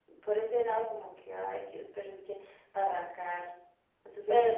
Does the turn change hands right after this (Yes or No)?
Yes